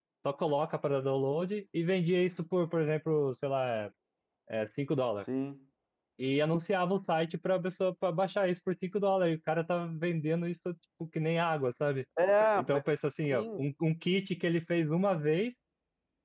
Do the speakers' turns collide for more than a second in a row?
No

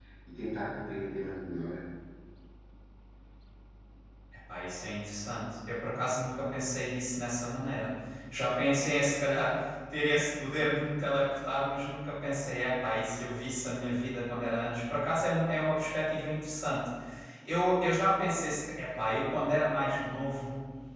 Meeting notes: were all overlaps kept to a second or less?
Yes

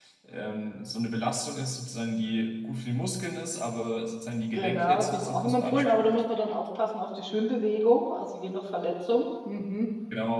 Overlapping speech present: Yes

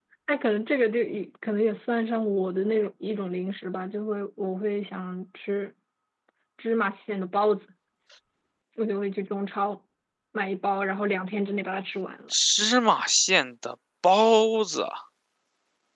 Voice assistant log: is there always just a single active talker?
Yes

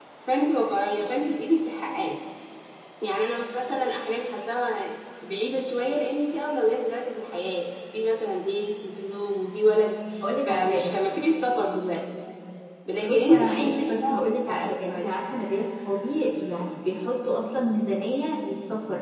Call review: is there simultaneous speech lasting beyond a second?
Yes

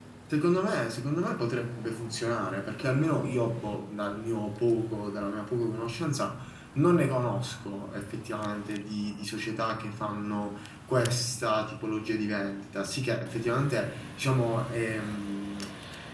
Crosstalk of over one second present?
No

